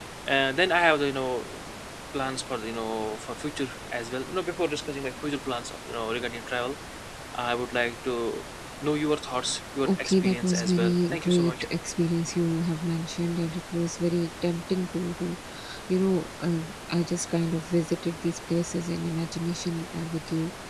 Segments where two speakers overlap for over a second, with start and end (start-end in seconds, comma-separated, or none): 9.9-11.7